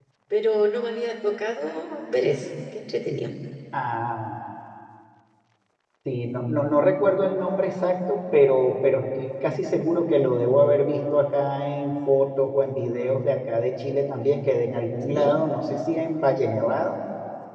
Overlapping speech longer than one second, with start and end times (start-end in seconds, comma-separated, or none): none